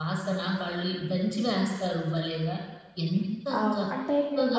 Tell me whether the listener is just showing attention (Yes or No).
No